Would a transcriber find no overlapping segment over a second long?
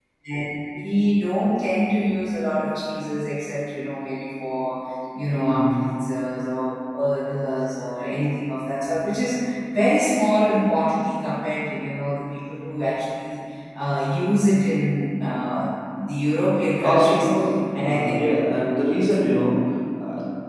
Yes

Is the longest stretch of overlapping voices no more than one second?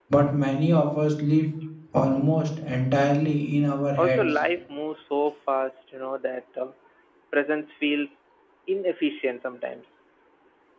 Yes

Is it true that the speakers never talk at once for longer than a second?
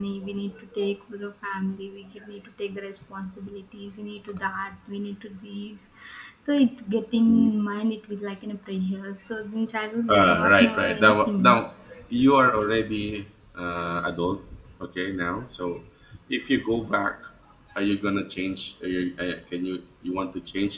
No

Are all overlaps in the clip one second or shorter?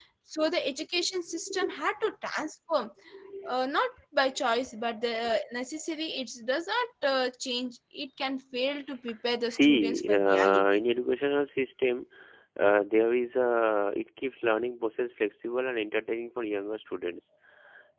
No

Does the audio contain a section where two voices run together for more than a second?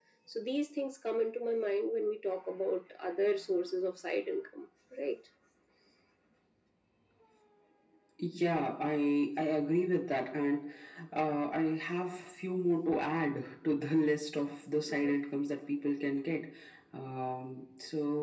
No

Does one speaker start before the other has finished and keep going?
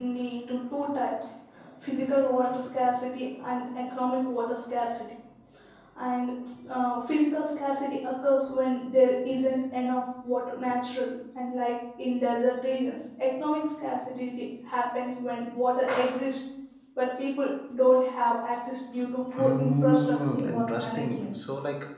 Yes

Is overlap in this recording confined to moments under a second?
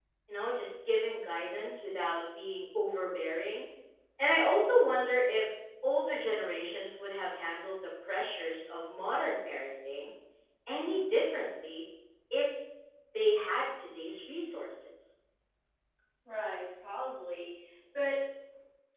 Yes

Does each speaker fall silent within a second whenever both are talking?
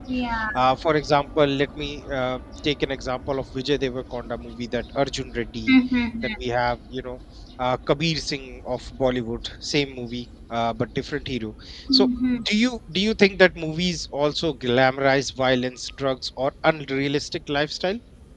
Yes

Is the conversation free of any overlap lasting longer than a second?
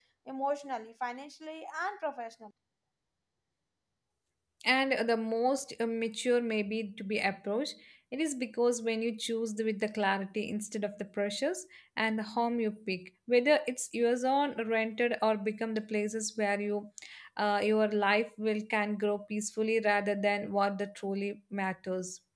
Yes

